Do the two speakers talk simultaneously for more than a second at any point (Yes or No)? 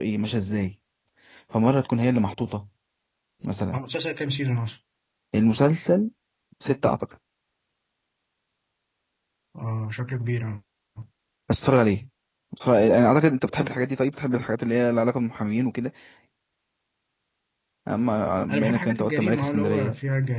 Yes